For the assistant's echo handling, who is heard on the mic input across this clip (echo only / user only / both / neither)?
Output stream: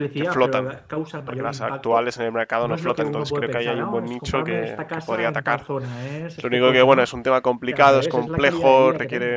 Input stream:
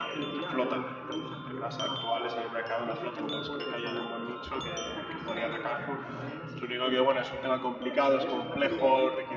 echo only